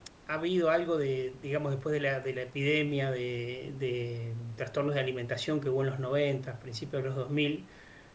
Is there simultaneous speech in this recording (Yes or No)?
No